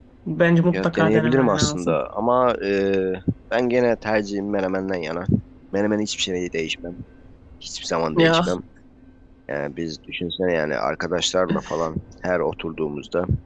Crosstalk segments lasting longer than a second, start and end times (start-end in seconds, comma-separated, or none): 0.7-2.0